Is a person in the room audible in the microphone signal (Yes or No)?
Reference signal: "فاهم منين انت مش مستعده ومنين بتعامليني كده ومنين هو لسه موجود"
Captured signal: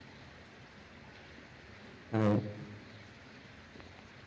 Yes